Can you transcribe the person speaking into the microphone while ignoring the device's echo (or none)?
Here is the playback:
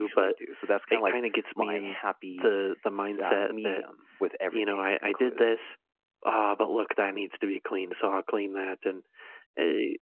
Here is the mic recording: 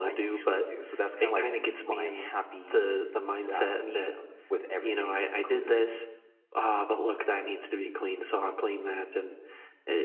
none